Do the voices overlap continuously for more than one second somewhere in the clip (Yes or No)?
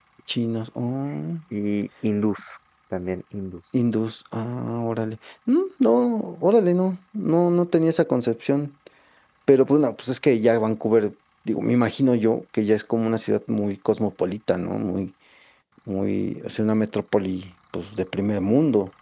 No